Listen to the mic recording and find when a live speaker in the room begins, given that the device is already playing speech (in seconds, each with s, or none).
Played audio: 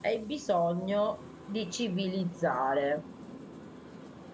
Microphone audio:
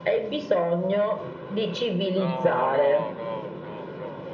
2.2 s